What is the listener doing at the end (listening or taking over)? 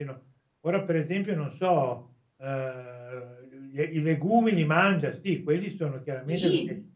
listening